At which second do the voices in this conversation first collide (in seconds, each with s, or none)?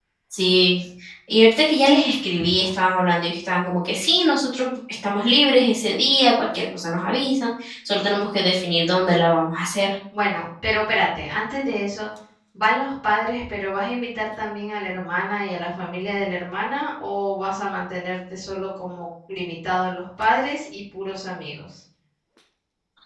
none